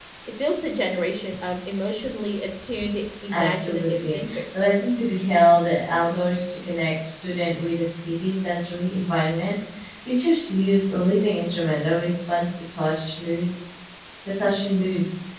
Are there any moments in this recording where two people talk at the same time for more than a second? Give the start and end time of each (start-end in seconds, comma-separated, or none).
3.3-4.7